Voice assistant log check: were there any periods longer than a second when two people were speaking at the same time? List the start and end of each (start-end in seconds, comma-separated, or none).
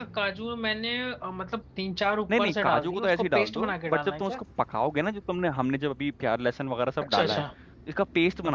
2.3-4.4